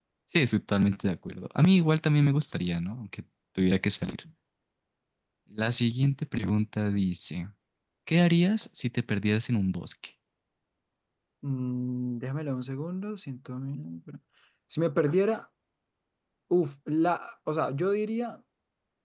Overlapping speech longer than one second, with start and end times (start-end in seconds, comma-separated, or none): none